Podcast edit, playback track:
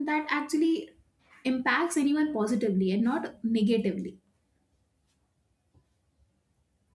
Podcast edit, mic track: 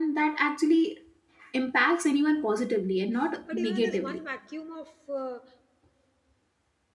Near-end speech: present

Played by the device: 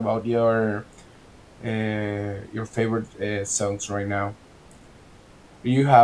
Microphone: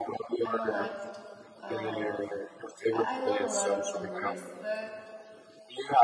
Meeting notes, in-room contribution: present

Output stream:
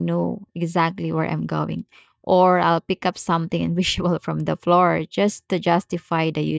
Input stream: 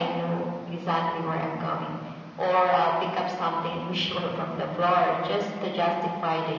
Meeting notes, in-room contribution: none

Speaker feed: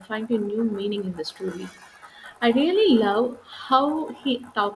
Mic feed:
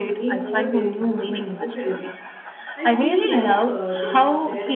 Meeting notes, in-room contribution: present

